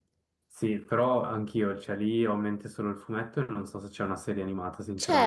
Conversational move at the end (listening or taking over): taking over